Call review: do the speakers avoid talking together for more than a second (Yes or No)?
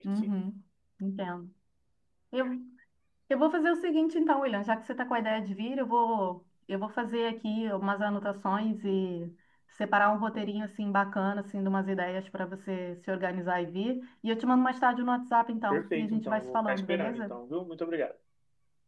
No